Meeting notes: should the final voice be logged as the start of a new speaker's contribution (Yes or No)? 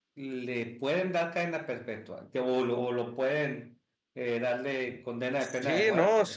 Yes